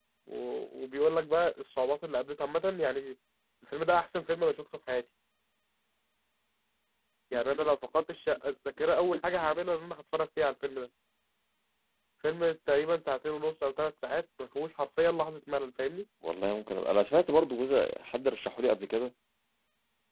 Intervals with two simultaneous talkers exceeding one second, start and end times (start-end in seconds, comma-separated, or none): none